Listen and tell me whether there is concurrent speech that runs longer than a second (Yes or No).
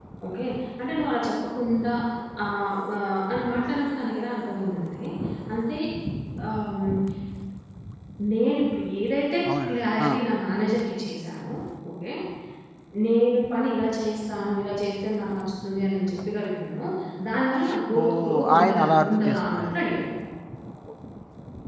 Yes